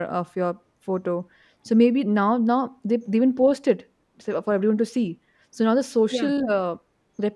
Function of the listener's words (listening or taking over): listening